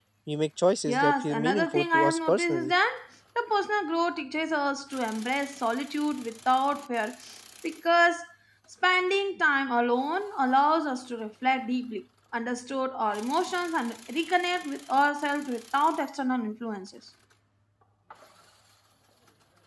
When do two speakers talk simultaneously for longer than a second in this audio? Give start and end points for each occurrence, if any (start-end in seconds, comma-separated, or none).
0.9-2.7